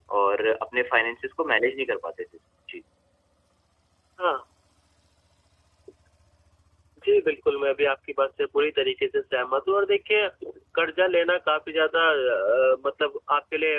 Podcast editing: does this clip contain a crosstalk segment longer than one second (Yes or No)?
No